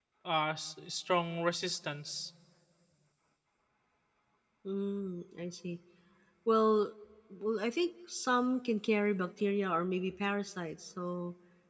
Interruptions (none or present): none